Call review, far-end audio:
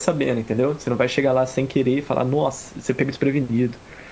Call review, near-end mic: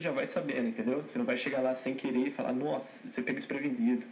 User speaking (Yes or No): No